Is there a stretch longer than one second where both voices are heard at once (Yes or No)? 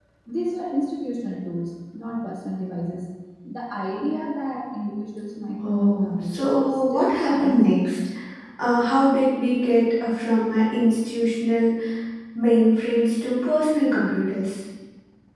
Yes